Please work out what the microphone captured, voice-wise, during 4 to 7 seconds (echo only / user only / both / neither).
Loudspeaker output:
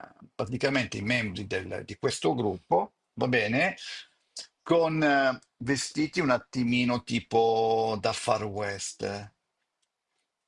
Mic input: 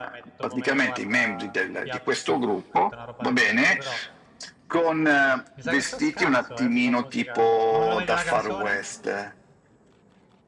both